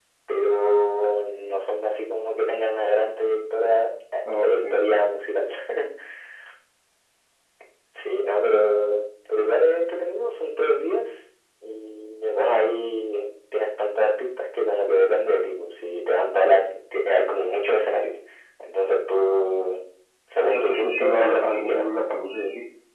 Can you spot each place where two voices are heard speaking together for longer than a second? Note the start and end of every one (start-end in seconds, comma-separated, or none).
20.4-21.8